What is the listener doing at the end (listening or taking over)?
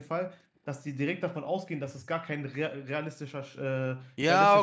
taking over